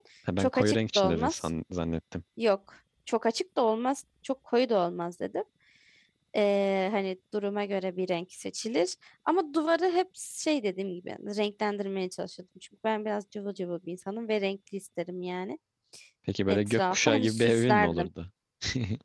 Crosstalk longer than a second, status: present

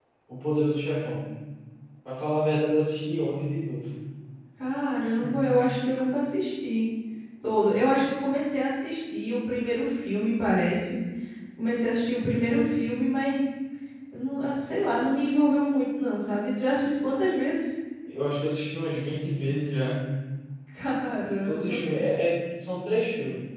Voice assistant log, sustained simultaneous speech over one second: none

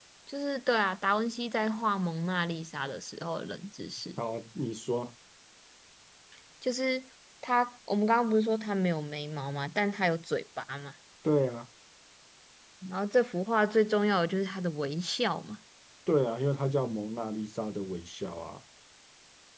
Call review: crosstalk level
none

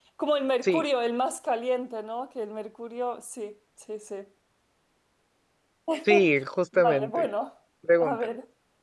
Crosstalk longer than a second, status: none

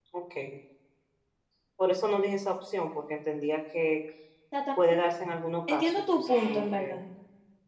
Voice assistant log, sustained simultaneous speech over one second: present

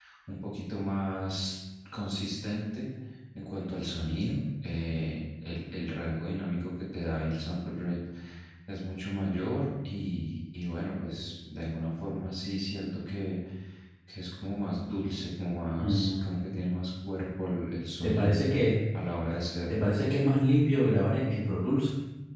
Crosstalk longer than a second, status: none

